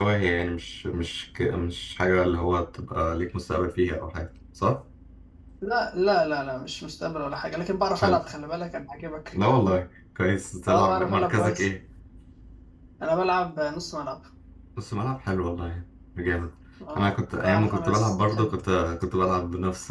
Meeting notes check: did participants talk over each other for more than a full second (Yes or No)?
Yes